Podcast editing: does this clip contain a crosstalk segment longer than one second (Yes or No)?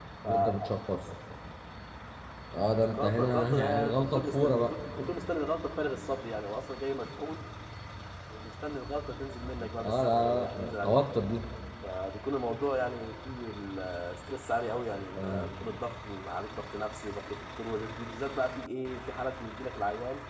Yes